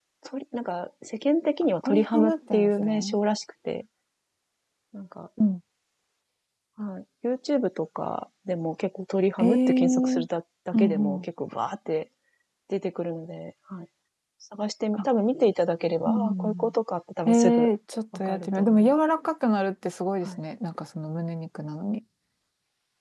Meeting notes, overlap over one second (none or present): present